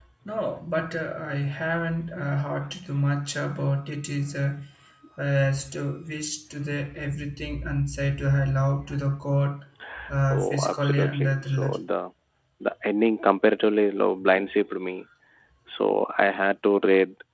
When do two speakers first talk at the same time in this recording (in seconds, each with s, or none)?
10.3 s